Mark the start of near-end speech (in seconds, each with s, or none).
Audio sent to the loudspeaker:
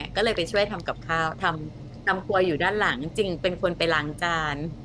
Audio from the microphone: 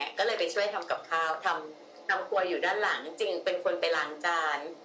none